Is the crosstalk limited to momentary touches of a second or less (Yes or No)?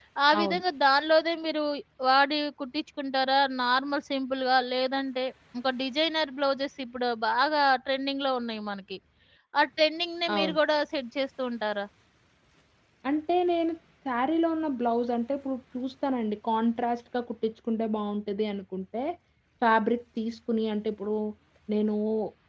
Yes